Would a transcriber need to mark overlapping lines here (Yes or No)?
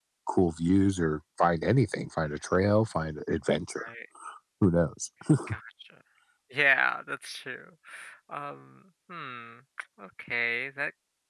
No